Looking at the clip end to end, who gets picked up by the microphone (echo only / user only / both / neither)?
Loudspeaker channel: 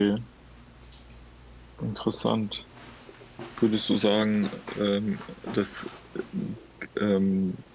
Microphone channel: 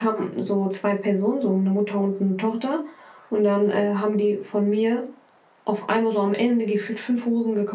user only